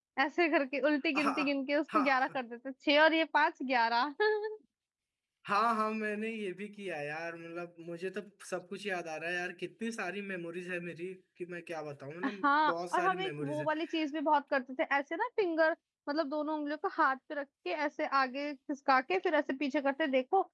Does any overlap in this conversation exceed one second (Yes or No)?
Yes